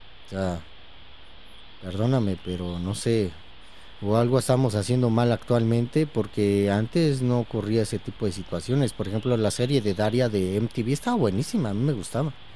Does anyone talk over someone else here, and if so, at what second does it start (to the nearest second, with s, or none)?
none